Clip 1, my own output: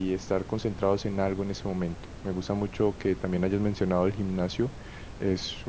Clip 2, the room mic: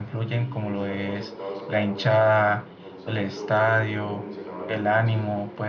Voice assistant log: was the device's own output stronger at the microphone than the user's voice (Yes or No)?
No